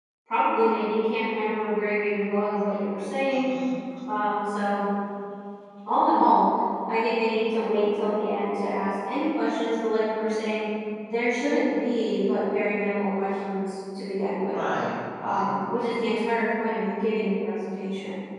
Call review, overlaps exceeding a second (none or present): none